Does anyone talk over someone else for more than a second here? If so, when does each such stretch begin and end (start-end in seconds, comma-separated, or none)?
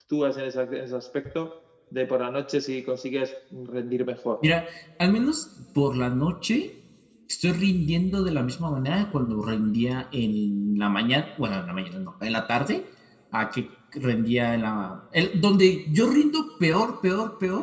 none